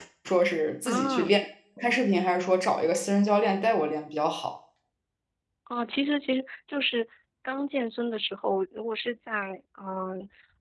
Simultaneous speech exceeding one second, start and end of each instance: none

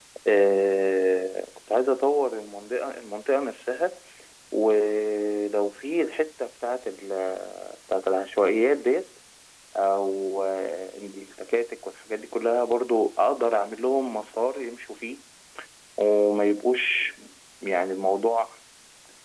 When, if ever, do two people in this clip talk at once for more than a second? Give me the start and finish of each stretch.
none

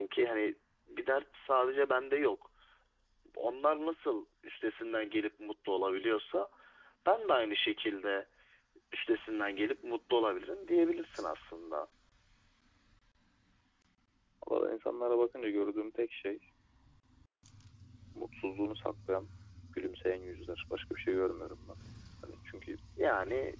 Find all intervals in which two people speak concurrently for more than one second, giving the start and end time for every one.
none

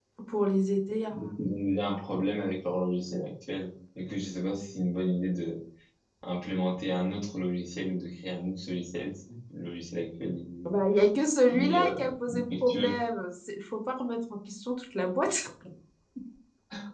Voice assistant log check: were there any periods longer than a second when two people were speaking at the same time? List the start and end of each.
11.5-12.9

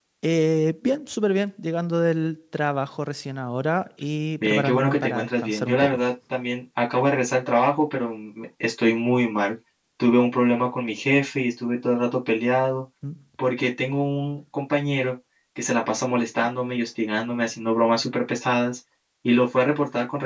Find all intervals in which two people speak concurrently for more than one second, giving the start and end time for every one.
4.4-6.0

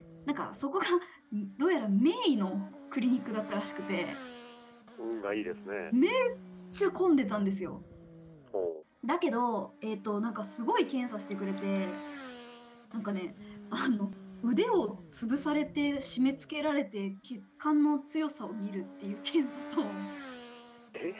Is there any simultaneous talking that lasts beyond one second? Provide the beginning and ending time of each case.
none

